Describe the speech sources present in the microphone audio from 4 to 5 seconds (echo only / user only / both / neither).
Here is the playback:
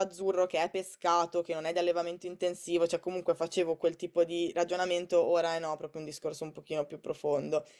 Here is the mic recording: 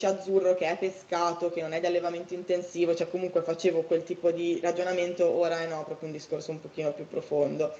echo only